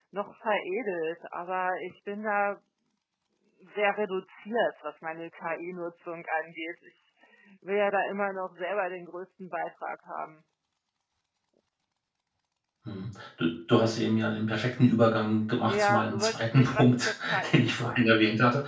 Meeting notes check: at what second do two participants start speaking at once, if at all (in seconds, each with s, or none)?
15.7 s